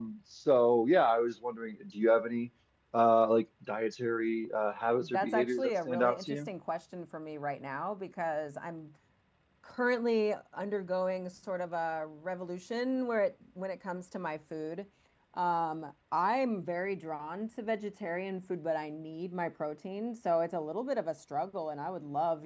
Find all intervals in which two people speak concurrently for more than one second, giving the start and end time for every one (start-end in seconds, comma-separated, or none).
5.0-6.5